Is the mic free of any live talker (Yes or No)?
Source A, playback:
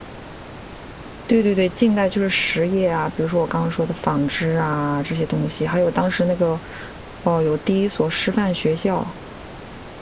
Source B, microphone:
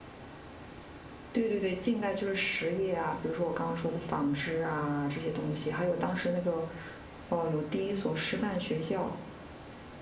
Yes